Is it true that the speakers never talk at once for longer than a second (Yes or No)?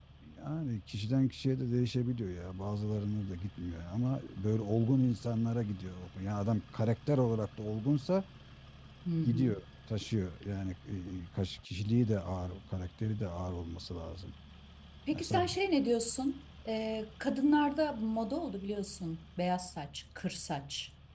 Yes